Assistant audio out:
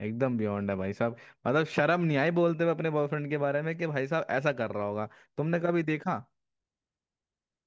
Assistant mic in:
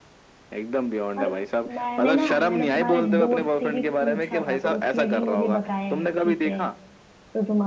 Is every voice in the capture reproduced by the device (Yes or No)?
No